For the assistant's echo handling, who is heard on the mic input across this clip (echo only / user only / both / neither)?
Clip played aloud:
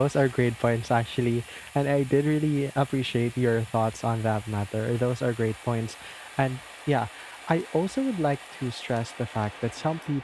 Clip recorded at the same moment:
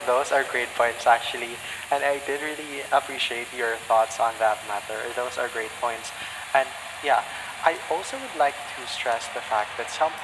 echo only